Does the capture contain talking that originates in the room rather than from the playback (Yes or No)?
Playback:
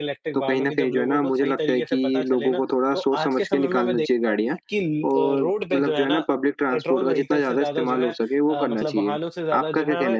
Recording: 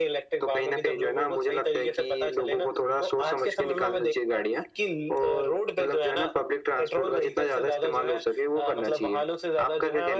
No